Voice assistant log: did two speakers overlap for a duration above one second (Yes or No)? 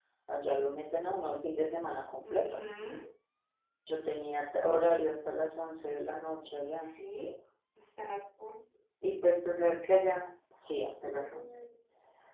No